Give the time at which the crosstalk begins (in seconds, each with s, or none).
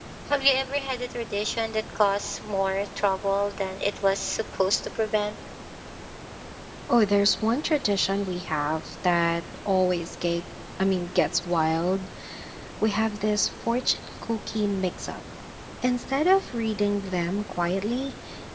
none